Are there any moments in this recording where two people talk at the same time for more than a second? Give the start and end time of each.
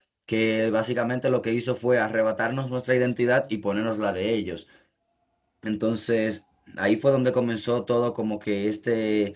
none

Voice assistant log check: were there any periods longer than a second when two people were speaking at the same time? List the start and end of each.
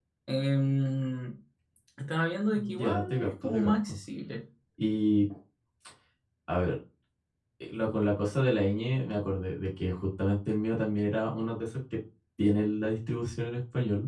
2.5-4.0

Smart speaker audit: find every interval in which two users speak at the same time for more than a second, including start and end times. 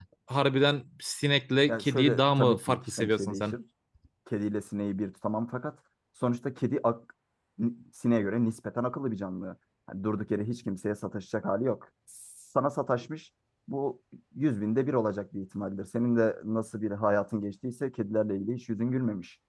1.7-3.5

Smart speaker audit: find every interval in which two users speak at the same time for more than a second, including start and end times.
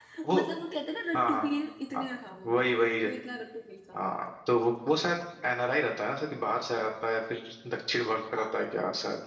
none

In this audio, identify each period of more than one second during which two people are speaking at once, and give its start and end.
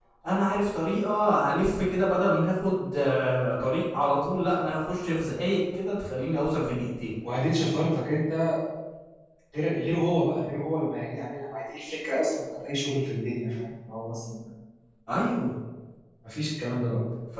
none

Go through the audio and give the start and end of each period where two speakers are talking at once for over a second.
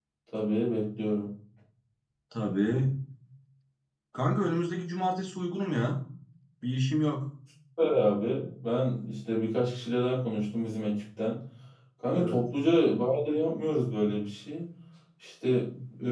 none

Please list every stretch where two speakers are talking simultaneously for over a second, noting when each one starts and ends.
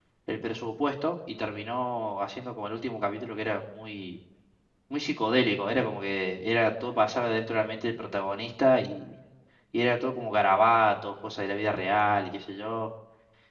none

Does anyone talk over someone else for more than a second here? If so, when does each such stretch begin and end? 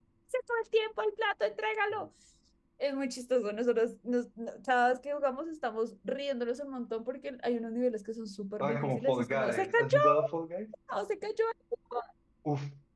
8.6-10.0

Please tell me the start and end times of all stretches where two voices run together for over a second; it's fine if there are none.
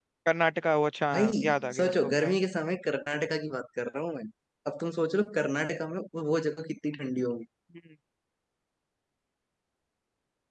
1.1-2.4

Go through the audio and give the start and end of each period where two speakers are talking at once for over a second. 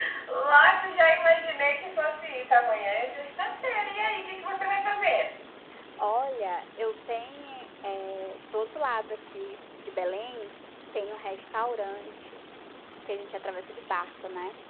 none

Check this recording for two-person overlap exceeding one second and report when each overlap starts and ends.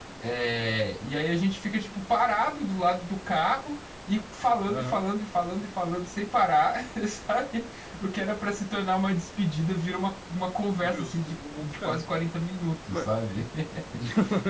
10.8-12.0

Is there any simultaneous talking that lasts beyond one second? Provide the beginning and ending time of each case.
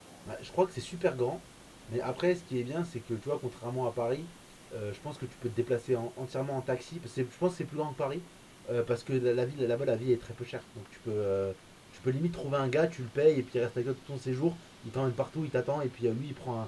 none

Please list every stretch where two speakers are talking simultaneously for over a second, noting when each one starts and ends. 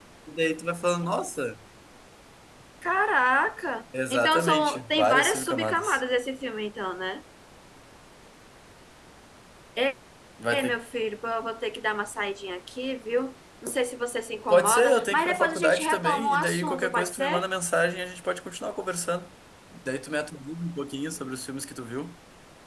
4.1-6.0, 14.5-17.5

